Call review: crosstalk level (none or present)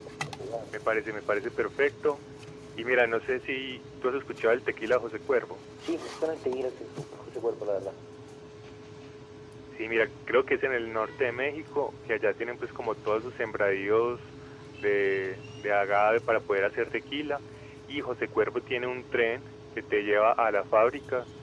none